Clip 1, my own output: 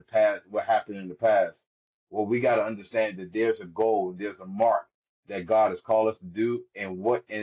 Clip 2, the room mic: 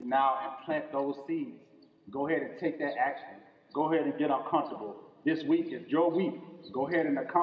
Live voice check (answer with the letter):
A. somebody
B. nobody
A